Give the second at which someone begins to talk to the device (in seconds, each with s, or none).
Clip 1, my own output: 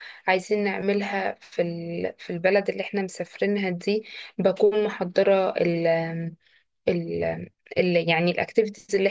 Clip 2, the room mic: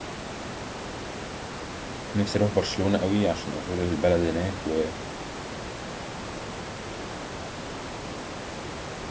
2.1 s